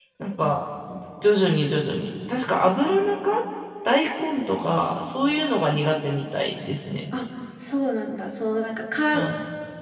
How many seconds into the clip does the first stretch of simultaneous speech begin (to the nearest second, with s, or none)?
none